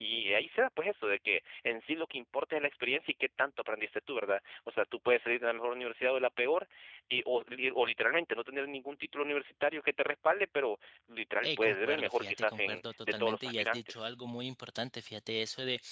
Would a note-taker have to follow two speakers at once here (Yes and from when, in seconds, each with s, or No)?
Yes, from 11.4 s